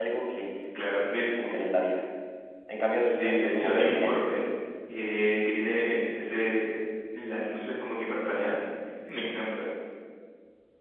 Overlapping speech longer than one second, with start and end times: 2.9-4.4

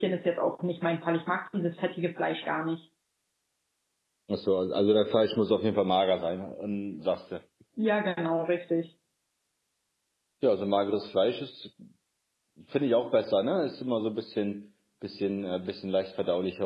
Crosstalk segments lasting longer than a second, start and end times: none

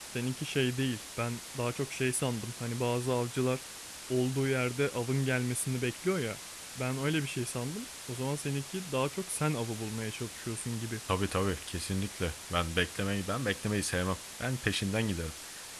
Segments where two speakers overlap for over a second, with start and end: none

